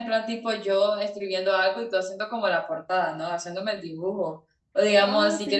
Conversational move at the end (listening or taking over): listening